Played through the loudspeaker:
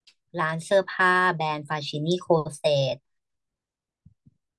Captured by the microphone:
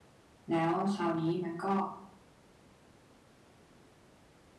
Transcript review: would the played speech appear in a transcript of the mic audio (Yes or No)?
No